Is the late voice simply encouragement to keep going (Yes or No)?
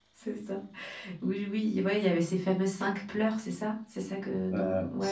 No